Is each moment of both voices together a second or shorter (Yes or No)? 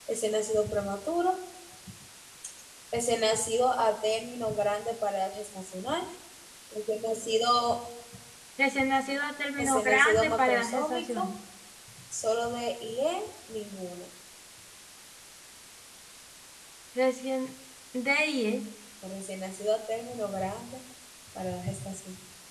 No